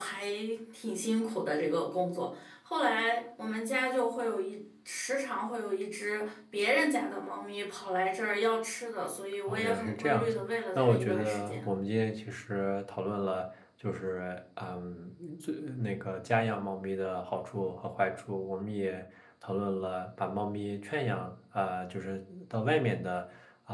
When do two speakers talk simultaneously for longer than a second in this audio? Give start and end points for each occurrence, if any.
9.5-11.7

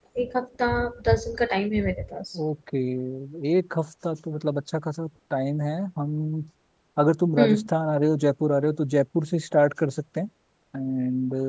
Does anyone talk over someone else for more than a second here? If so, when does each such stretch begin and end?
none

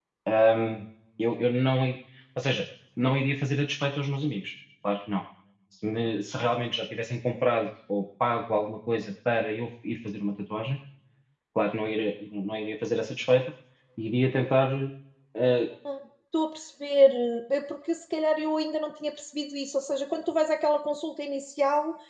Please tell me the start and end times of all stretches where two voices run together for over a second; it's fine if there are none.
none

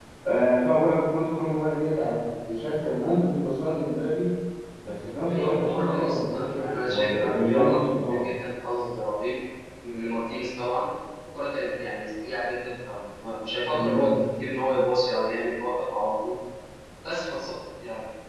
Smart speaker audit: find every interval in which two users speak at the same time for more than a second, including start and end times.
5.3-8.3

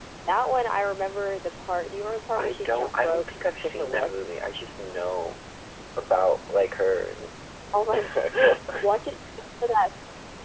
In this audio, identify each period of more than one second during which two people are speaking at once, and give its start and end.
2.4-4.1

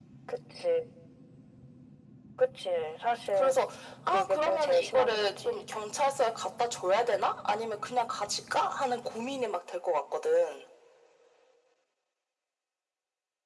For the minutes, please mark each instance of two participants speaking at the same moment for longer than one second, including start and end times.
4.1-5.5

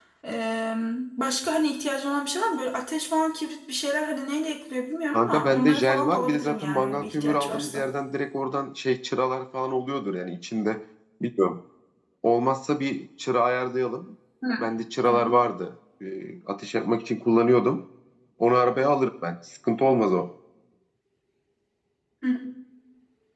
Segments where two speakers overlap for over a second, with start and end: 5.1-7.8

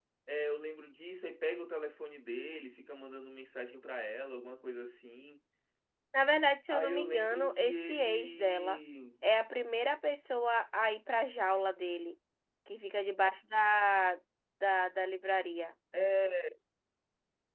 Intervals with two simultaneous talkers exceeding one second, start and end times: 6.7-8.8

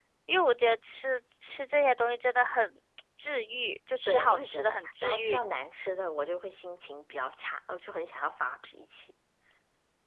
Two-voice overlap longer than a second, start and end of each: 4.0-5.4

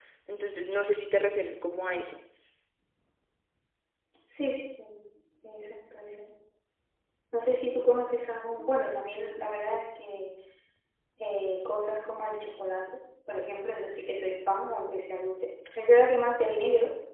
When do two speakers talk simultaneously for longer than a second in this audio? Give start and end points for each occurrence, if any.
none

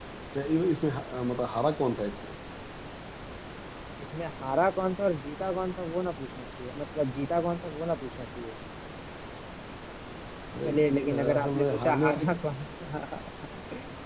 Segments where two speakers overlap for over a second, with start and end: 10.6-12.3

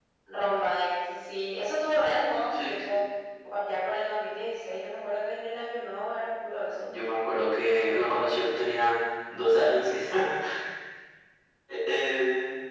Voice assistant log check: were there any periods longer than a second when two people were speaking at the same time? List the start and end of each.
none

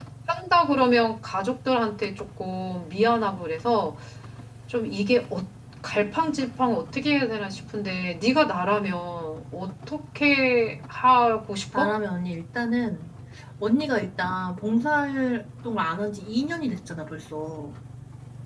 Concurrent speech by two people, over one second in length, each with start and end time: none

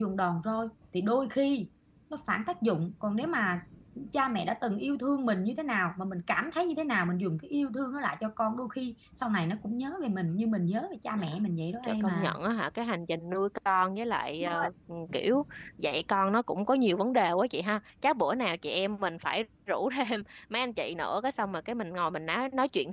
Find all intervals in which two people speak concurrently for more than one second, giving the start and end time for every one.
none

